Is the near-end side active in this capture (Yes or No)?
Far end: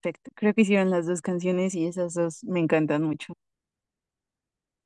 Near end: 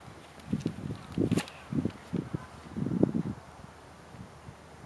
No